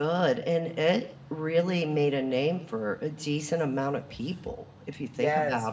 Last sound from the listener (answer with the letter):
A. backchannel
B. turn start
B